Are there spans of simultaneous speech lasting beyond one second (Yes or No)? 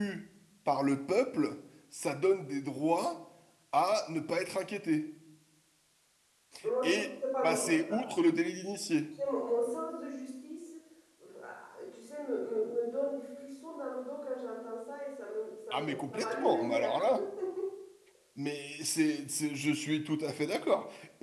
Yes